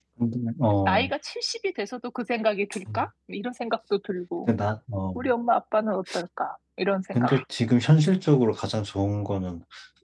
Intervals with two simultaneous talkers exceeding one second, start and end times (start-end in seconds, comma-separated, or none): none